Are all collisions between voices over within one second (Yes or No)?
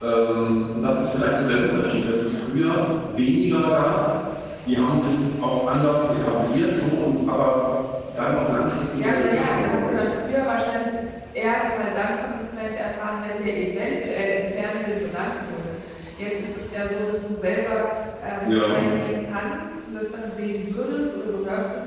No